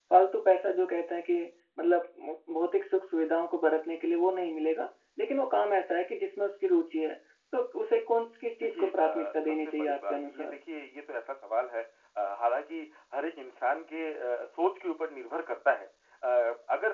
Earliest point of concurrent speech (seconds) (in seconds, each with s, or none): 8.6 s